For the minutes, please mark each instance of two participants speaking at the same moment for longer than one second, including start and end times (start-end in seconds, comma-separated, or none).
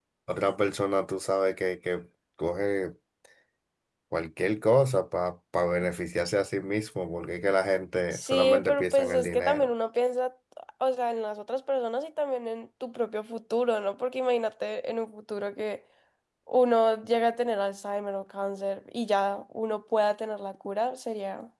8.1-9.7